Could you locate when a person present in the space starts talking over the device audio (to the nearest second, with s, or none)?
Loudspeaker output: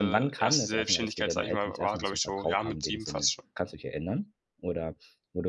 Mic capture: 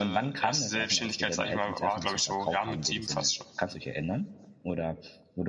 none